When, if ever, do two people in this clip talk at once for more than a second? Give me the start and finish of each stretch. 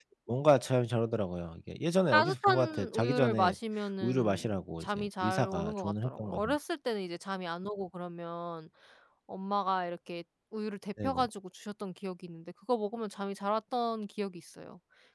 2.1-3.5, 4.0-6.6

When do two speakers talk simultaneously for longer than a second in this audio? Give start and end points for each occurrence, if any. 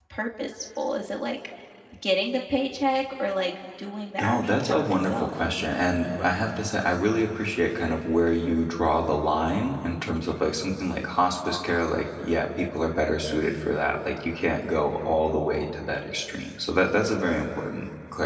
4.2-5.4

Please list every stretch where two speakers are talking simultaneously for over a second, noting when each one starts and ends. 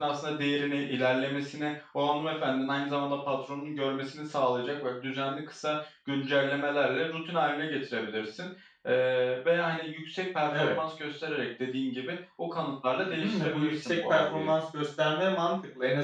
13.0-14.5

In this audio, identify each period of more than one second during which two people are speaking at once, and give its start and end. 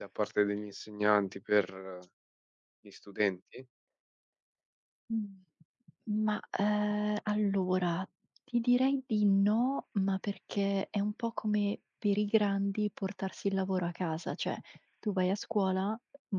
none

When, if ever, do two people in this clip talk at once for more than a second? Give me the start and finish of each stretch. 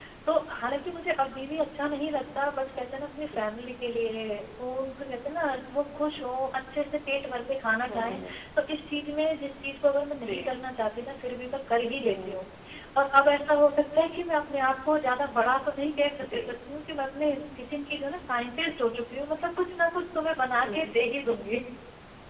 none

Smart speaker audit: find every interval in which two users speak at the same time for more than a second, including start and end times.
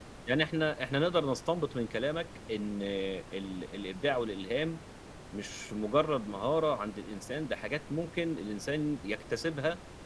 none

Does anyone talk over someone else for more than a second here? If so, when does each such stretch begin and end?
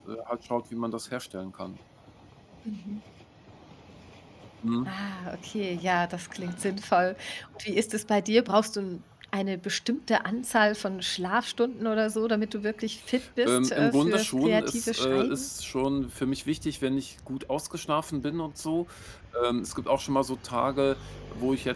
13.5-15.5

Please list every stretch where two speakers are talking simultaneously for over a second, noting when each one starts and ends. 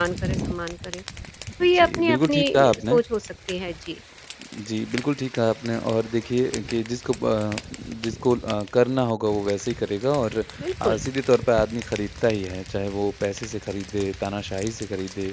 1.8-3.0

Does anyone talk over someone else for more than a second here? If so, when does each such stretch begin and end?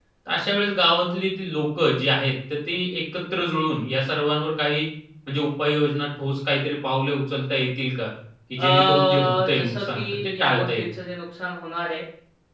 8.6-10.9

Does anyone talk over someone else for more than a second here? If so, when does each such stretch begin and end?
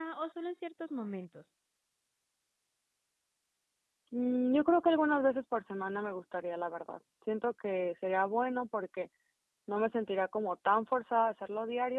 none

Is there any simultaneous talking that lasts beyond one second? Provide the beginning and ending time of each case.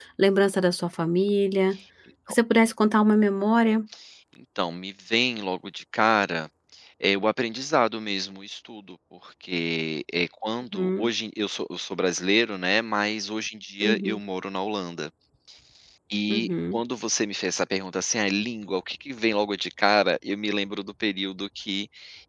none

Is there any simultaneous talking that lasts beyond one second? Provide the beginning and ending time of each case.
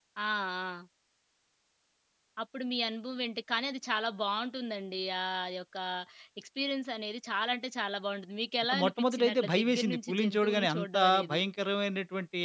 8.6-11.4

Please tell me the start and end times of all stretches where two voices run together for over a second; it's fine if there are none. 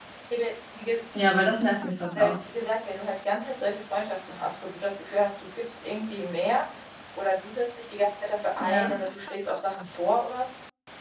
none

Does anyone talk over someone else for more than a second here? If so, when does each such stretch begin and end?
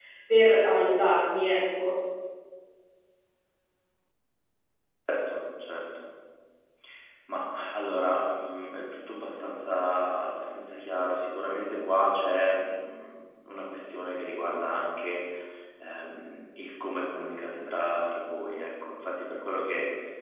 none

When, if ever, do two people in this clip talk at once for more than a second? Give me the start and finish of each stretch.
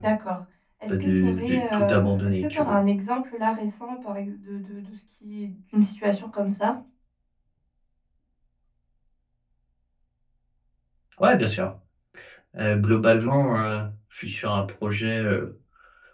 0.9-2.8

